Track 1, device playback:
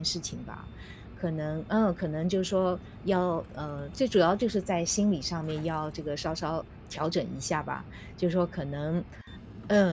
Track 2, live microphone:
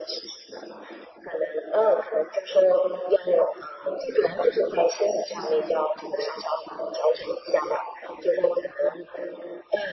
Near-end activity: none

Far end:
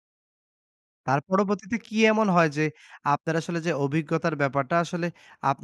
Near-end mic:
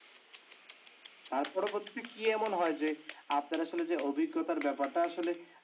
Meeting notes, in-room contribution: none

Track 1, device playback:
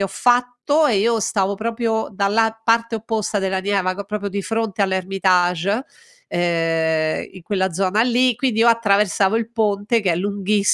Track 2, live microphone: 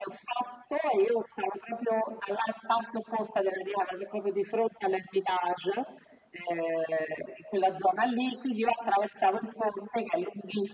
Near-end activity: none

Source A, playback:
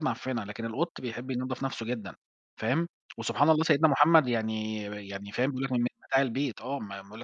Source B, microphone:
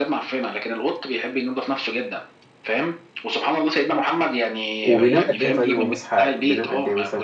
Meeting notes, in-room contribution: present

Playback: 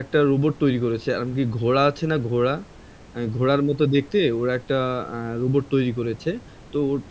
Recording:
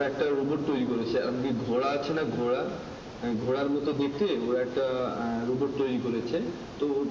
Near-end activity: none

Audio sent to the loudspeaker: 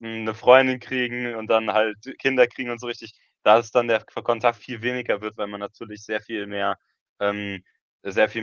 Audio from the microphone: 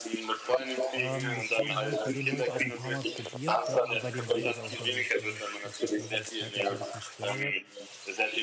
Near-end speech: present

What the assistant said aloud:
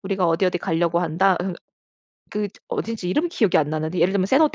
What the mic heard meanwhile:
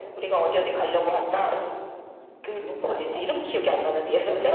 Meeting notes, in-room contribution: present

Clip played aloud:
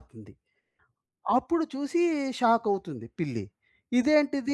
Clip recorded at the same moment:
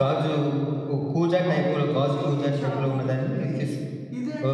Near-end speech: present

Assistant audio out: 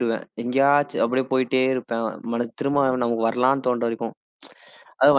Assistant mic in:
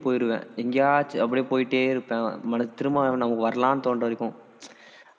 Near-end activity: none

